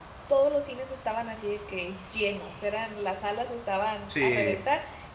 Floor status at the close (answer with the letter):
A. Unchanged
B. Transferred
A